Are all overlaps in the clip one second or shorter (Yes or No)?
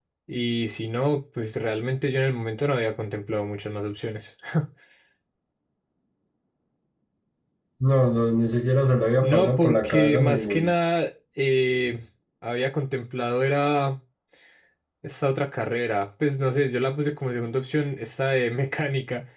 No